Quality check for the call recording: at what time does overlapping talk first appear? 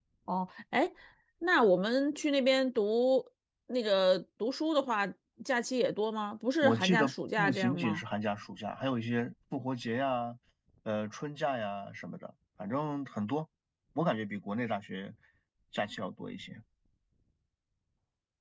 6.6 s

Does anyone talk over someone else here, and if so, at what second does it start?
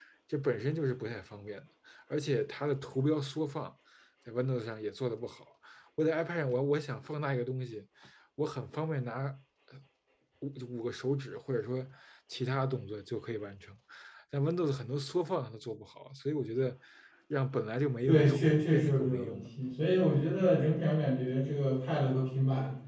18.1 s

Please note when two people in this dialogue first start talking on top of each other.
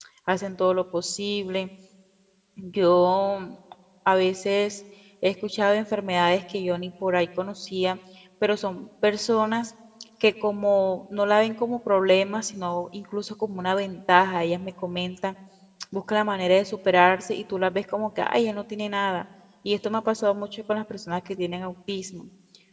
none

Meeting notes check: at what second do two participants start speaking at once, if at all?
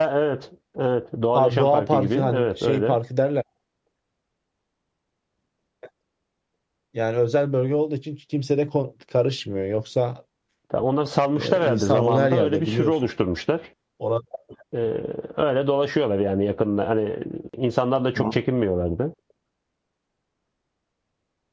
1.4 s

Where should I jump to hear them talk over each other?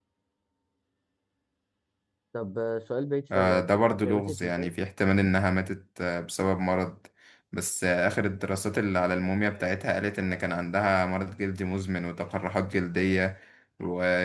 3.3 s

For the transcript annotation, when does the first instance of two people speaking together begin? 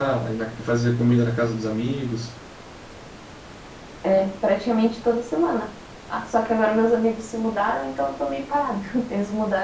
none

